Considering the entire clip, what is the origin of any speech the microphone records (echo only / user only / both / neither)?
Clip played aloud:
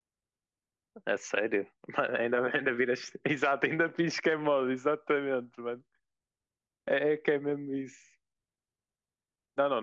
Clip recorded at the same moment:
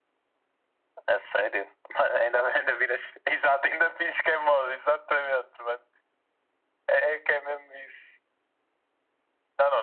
echo only